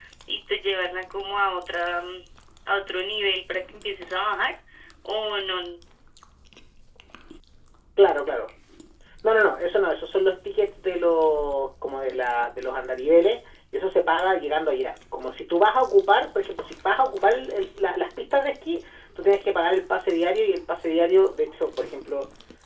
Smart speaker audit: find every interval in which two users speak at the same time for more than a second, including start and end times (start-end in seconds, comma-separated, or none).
none